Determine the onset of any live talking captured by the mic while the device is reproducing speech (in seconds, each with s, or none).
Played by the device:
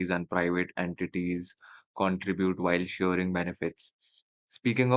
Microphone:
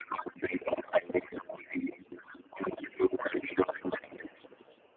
none